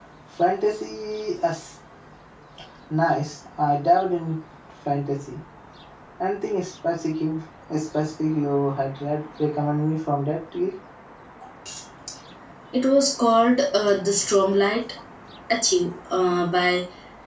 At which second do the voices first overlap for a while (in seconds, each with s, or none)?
none